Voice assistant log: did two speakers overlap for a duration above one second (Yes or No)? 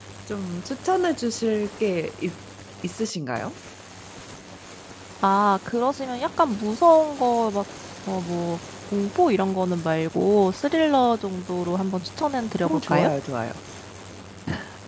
No